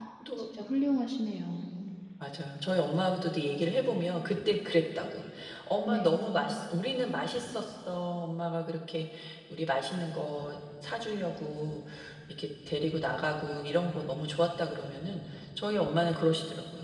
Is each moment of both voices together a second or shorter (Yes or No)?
Yes